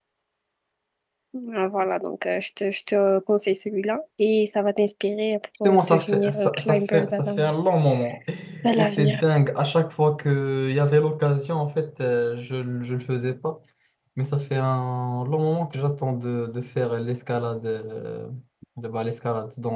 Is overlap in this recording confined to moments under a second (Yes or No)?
No